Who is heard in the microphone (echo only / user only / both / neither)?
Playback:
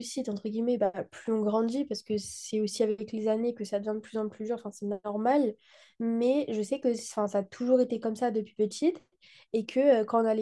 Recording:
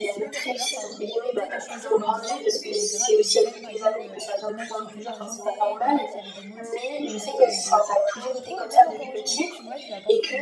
both